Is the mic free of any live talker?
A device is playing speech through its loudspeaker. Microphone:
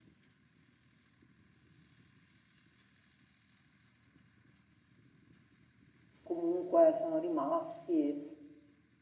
No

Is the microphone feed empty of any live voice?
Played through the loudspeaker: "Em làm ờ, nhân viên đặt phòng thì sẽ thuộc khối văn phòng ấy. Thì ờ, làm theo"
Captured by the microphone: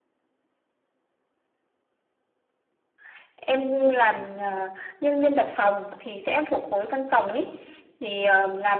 Yes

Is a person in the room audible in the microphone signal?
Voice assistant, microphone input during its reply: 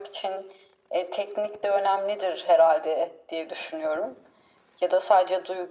No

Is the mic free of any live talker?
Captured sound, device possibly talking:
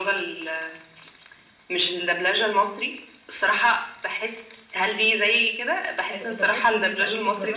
No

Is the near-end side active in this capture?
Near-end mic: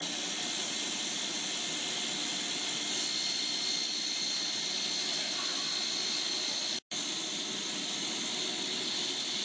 No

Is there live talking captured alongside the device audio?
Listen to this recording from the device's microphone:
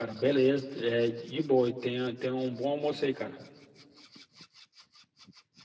Yes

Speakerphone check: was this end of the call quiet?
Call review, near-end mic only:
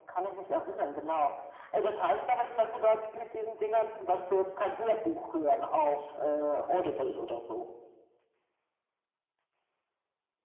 Yes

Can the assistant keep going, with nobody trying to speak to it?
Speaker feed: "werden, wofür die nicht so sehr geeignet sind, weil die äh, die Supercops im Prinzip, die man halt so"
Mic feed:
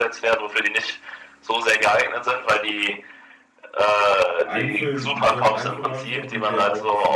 No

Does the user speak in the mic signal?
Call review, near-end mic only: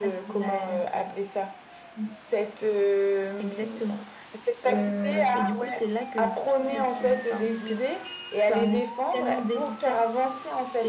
Yes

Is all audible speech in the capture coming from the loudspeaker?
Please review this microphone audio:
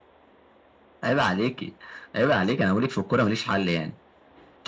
Yes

